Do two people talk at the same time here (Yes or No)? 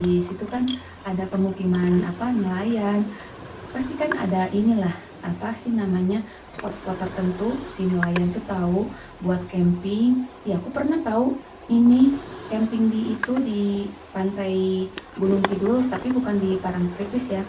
No